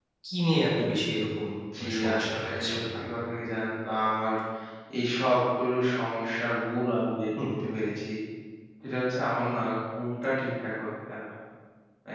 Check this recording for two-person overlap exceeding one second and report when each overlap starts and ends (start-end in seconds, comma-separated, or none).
1.8-3.0